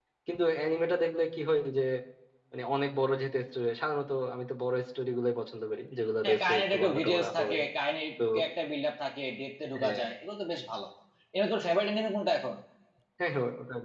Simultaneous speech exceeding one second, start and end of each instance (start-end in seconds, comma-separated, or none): 6.2-7.6